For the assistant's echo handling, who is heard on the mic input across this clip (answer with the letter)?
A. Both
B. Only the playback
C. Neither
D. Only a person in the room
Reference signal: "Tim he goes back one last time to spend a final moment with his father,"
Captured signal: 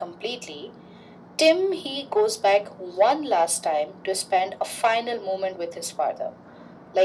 B